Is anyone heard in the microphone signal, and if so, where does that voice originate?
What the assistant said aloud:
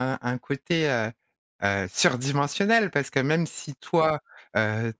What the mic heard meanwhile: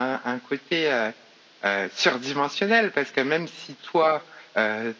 echo only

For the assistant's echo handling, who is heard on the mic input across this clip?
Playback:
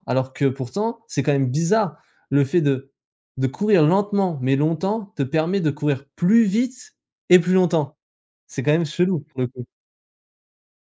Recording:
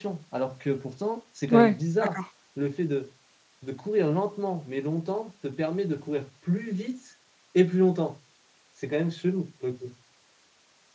both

